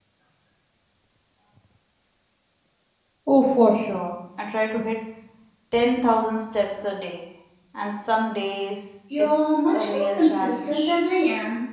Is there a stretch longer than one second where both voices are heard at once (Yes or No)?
Yes